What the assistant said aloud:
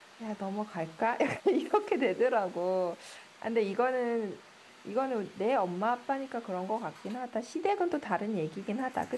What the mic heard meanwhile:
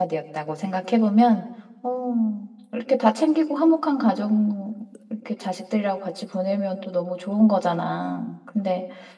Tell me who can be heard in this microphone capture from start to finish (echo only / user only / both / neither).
user only